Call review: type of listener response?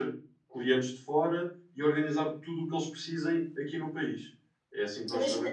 taking over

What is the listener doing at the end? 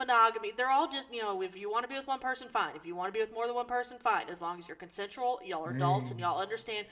listening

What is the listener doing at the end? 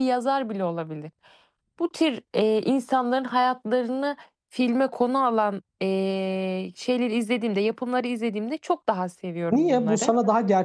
taking over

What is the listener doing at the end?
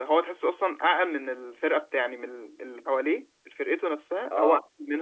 listening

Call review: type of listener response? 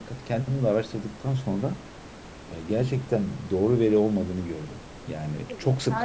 taking over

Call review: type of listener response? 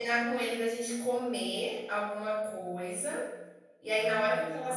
listening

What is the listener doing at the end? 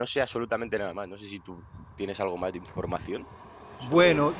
taking over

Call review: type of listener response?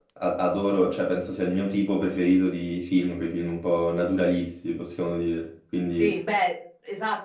taking over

